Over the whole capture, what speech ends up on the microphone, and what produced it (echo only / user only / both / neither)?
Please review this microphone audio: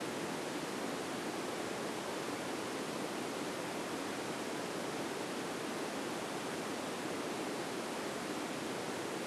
neither